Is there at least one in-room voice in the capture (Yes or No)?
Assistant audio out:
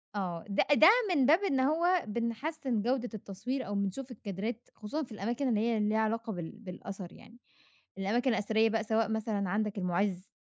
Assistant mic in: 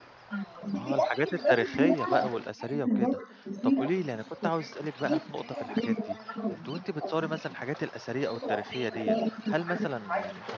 Yes